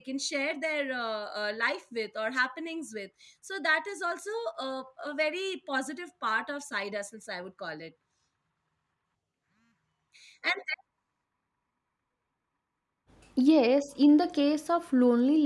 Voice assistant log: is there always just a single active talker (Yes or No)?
Yes